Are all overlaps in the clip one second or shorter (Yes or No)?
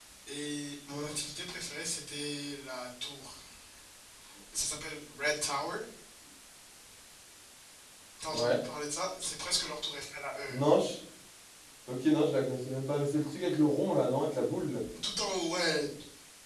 Yes